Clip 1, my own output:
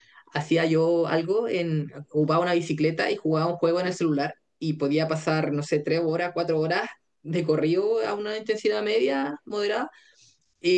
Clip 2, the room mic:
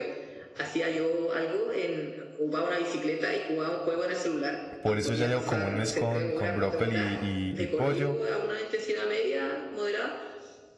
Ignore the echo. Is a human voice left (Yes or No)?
Yes